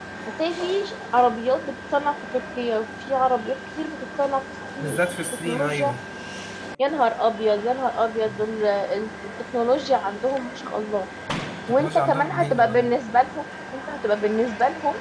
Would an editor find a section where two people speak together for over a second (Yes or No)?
Yes